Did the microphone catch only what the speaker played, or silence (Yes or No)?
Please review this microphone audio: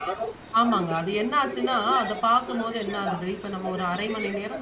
No